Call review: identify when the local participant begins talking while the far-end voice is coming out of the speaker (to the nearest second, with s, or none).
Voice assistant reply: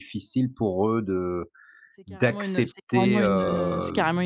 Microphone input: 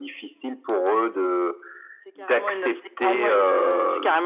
none